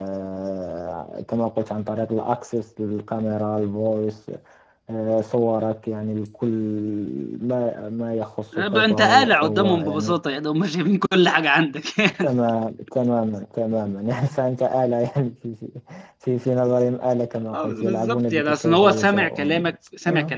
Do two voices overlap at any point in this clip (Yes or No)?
Yes